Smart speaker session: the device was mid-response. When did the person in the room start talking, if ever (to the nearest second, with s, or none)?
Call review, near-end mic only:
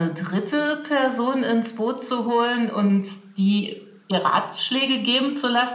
none